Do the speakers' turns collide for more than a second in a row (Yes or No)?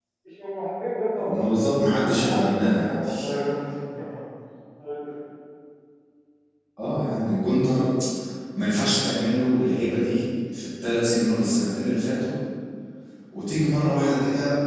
Yes